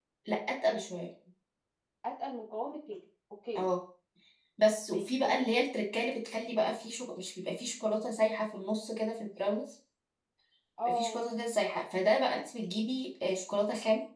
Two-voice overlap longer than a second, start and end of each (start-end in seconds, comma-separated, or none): none